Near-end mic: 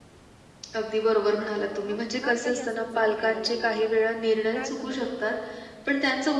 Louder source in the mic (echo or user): echo